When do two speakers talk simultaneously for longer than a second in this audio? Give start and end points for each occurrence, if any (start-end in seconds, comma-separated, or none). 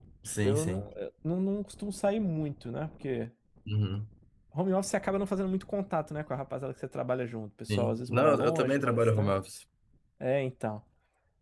7.7-9.3